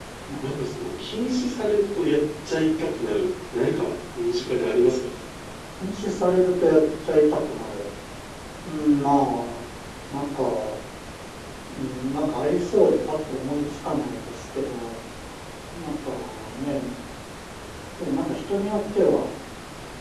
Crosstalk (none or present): none